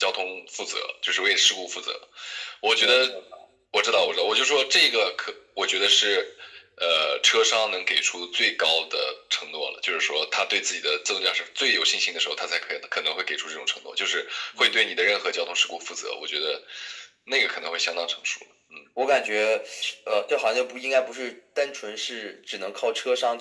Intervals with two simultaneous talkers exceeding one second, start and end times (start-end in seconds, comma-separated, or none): none